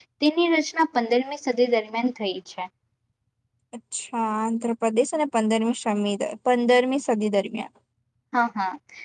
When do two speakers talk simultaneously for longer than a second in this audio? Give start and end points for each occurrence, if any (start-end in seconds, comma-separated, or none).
none